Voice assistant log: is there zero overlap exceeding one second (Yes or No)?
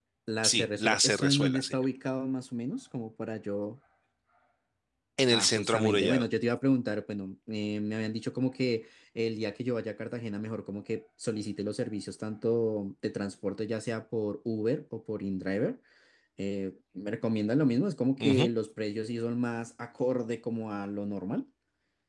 No